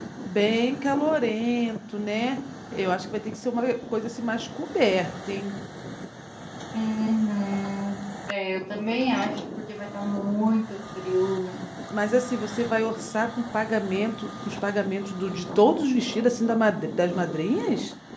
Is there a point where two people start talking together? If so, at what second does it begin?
none

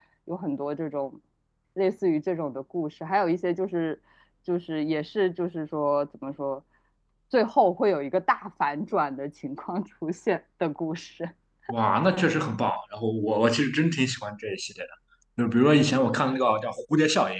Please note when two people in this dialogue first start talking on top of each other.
none

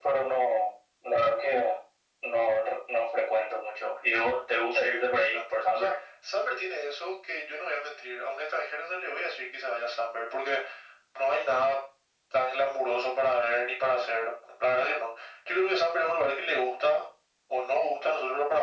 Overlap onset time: 4.7 s

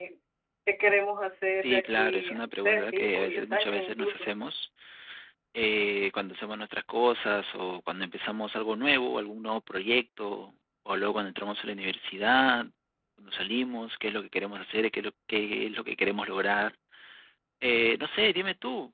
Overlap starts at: 1.6 s

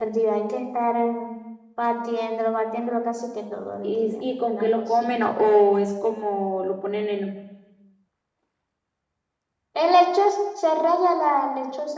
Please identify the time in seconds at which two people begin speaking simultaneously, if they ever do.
3.8 s

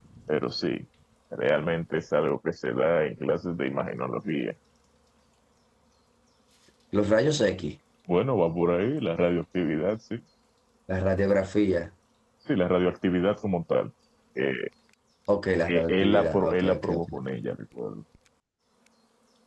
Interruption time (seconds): 15.7 s

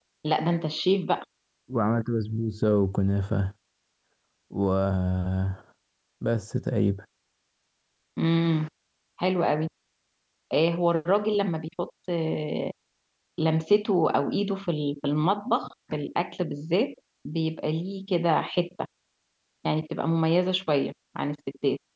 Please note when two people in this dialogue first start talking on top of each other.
none

